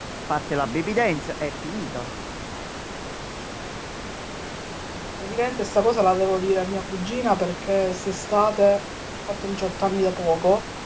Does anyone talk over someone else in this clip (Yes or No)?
No